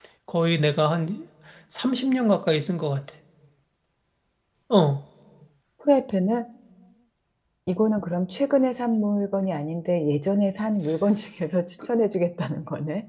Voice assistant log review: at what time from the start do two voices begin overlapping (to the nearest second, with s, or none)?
none